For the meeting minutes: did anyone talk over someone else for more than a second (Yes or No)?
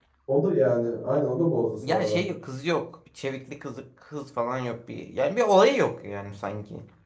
No